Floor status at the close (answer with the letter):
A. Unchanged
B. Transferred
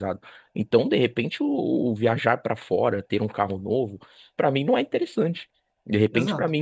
A